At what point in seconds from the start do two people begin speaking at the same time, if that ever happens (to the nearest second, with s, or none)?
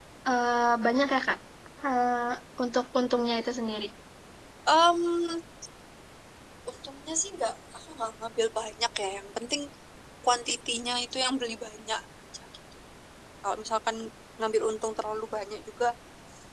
none